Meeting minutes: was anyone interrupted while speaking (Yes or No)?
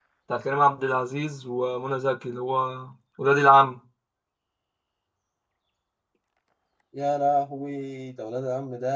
No